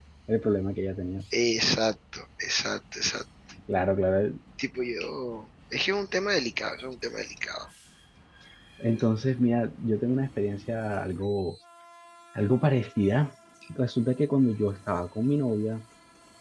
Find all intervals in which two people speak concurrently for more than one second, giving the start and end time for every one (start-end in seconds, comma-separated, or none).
none